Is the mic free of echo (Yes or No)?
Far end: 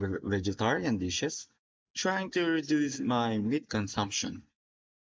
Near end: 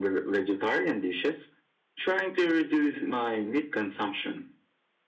No